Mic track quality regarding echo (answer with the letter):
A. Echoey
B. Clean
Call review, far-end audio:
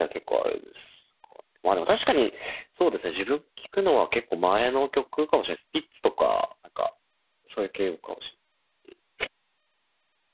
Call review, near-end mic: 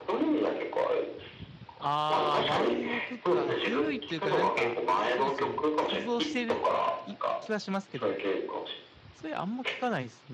A